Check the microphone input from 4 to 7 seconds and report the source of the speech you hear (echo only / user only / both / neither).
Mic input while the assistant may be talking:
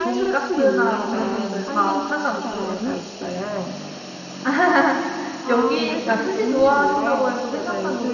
both